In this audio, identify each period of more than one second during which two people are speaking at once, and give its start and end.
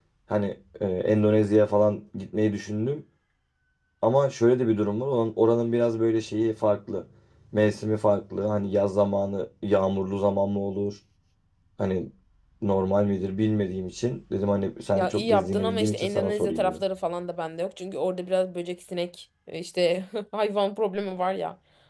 14.9-16.8

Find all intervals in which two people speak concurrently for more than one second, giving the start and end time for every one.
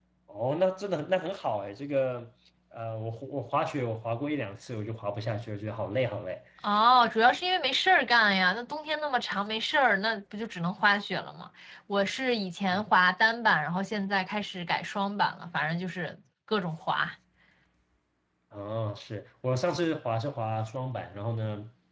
none

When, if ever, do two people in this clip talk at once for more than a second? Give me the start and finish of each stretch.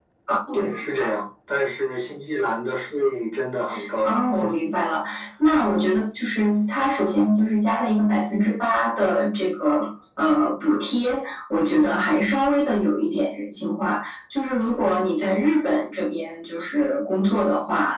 none

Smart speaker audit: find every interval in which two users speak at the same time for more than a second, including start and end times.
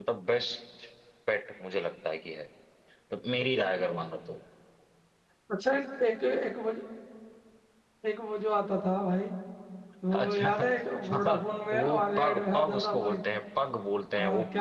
11.1-13.2

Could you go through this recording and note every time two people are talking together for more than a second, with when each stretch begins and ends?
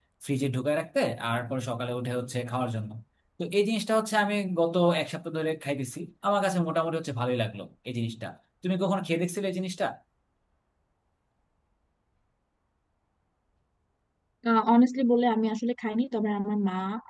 none

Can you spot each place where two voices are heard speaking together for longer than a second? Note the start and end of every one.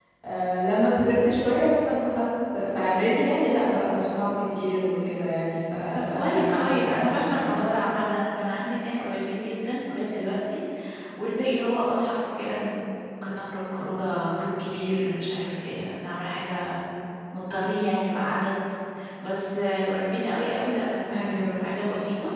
6.0-7.5

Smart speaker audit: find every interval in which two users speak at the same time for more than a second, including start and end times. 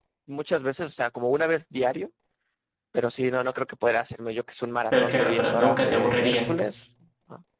4.9-6.5

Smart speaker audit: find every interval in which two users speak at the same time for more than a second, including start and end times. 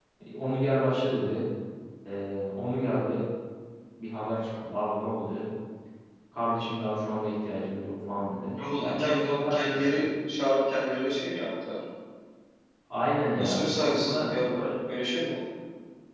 8.8-10.0, 13.4-14.6

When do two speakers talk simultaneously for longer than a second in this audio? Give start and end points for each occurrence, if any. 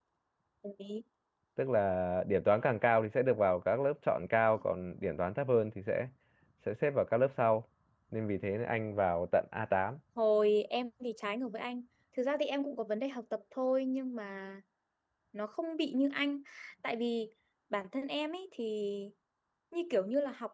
none

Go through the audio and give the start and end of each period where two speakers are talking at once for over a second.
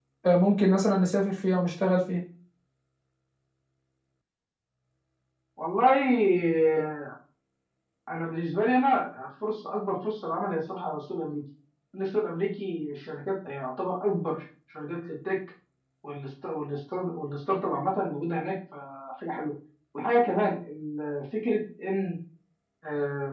none

